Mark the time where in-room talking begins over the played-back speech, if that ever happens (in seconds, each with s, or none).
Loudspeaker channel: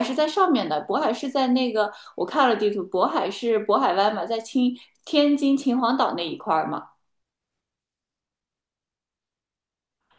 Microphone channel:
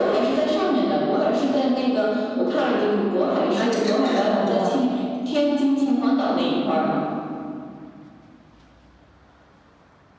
3.5 s